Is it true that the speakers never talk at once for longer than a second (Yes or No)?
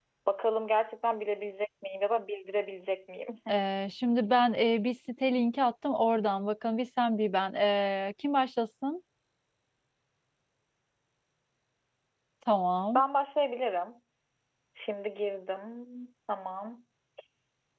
Yes